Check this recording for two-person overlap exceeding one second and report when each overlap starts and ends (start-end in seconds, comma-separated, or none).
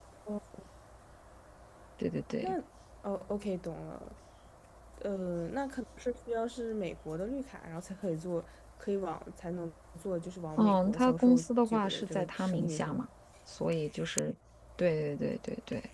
10.6-13.0